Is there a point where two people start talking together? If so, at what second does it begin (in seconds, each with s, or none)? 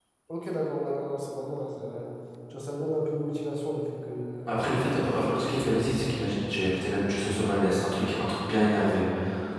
none